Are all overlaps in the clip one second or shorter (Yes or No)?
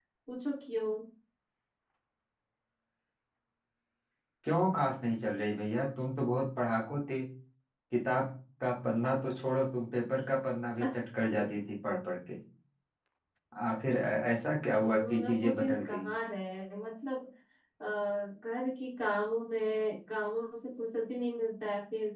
No